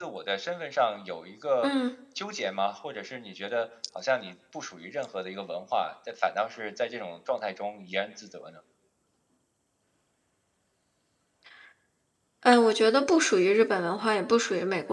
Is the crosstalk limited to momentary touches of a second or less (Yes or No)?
Yes